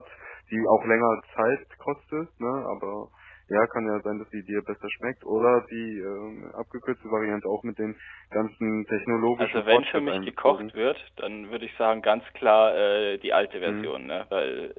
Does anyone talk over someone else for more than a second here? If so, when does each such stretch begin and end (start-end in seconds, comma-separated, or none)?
9.4-10.6